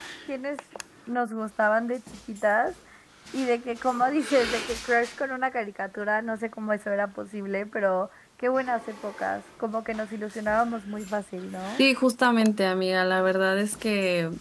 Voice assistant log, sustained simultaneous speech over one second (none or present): none